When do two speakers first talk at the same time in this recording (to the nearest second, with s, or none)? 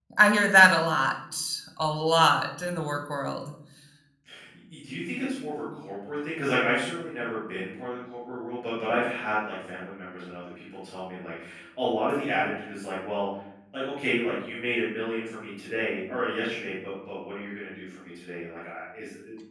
none